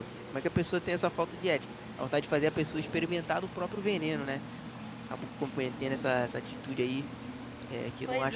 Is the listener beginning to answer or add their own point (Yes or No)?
Yes